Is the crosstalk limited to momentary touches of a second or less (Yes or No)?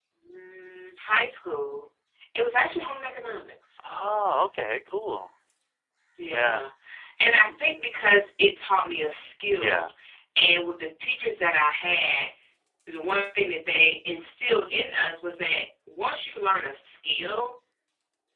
Yes